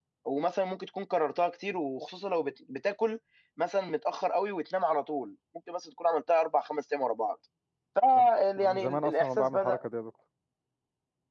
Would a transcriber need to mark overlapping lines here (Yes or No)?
Yes